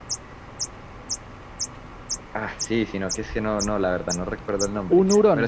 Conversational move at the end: listening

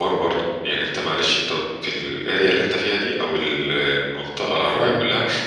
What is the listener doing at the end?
listening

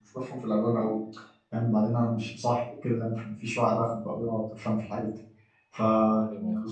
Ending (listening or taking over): listening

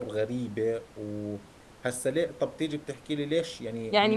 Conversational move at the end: taking over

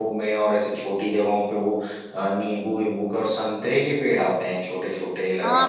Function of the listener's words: taking over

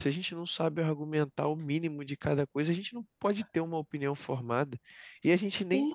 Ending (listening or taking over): listening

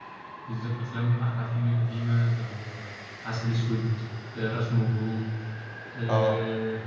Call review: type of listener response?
listening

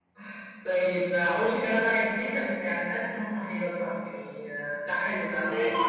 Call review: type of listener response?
listening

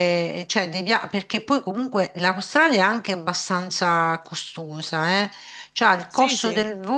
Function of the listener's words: listening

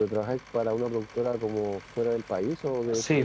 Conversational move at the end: taking over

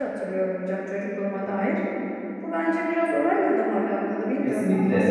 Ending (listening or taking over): taking over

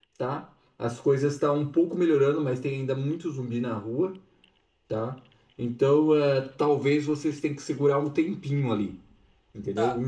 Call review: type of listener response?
taking over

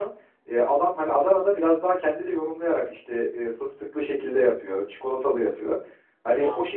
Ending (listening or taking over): listening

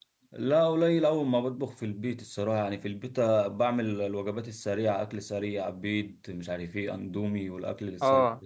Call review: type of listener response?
taking over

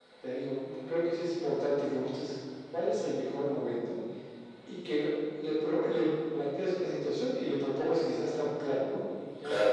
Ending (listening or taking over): listening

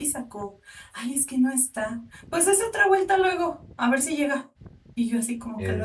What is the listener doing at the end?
listening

